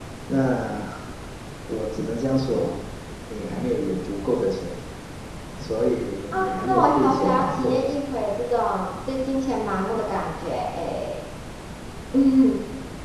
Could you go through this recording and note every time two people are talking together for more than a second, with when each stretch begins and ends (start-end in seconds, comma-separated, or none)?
6.3-7.7